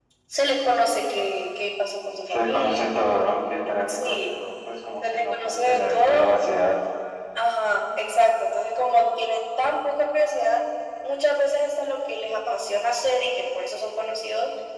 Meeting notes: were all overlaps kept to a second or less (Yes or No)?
No